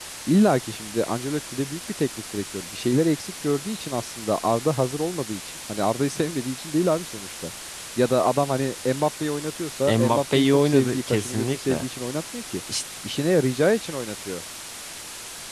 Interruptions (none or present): present